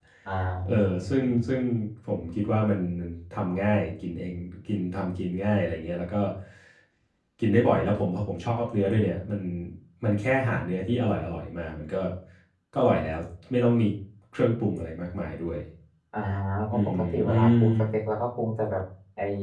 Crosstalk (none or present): present